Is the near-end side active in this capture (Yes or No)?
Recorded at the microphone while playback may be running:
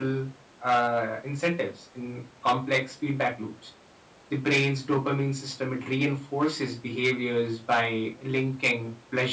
Yes